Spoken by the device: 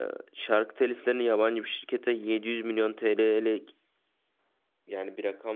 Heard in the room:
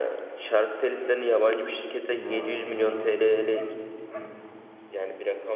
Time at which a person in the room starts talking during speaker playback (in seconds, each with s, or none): 2.1 s